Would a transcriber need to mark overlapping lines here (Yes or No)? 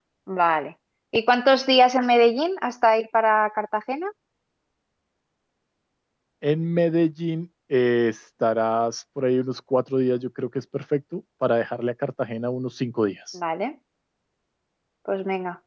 No